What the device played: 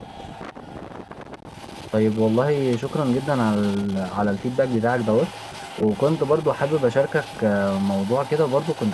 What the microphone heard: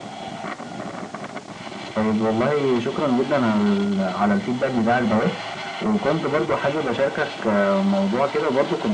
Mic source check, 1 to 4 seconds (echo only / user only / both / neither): echo only